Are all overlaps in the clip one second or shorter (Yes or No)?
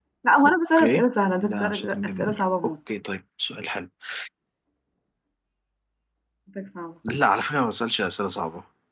No